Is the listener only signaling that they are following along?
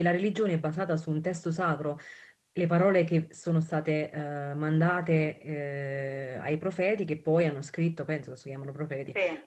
Yes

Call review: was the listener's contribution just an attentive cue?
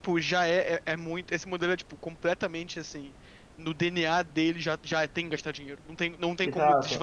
No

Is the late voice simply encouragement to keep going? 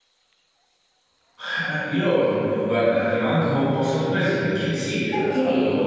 Yes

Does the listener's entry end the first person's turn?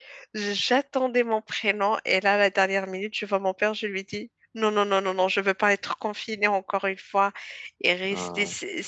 No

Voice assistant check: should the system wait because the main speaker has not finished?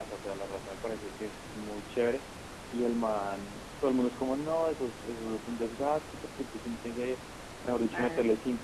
Yes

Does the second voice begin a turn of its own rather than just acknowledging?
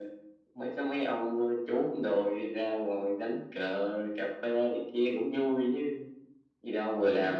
Yes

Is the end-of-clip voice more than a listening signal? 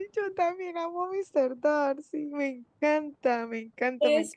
Yes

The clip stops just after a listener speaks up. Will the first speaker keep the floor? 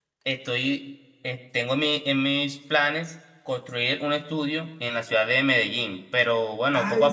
No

